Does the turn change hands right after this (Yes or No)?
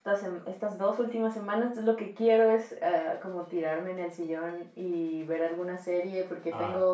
No